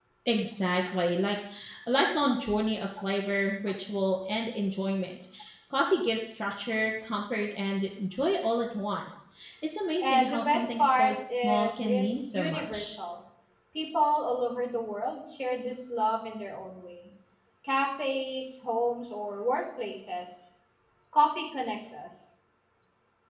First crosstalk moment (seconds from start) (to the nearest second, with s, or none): 10 s